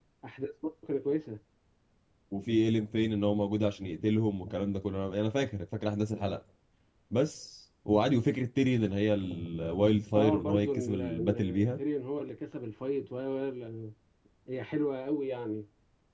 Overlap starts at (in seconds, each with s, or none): 10.2 s